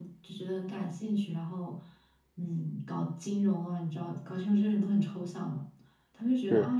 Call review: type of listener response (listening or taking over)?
listening